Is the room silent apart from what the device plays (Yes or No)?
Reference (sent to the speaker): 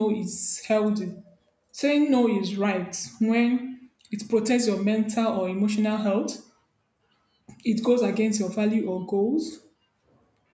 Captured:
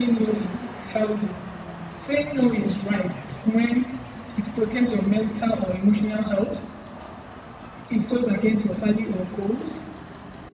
Yes